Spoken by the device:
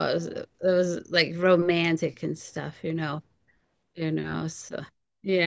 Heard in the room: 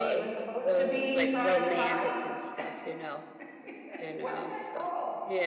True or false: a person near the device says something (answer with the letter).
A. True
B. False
A